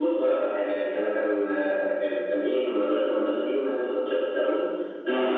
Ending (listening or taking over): listening